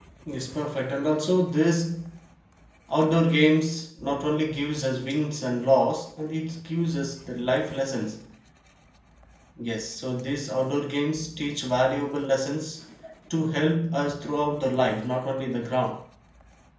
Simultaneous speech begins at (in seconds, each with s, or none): none